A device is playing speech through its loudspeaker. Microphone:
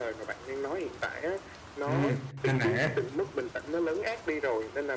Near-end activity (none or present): present